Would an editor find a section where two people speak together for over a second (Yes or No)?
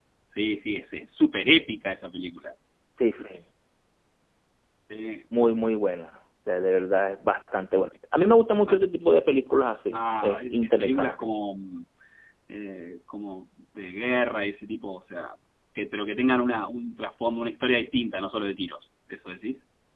Yes